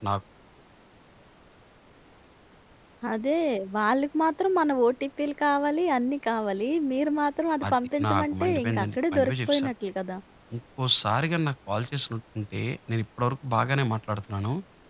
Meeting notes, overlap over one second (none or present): present